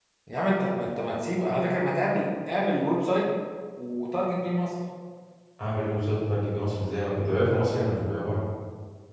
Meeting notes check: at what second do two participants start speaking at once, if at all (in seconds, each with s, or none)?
none